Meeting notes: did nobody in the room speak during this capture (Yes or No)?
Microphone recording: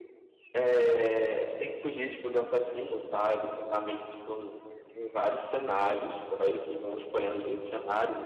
Yes